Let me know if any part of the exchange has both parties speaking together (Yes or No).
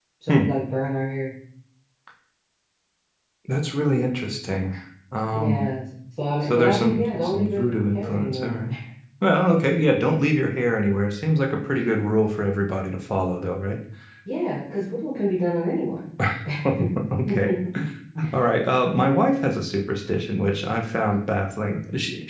Yes